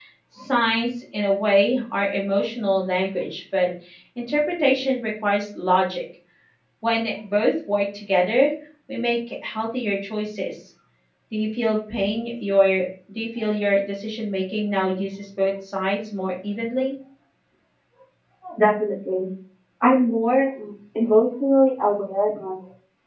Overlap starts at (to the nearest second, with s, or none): none